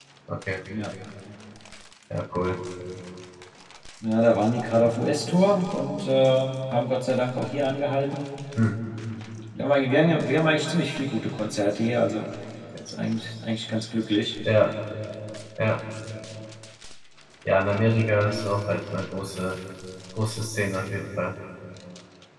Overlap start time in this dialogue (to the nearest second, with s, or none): none